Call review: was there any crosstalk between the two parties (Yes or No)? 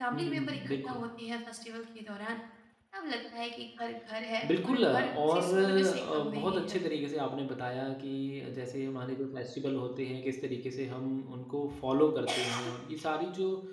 Yes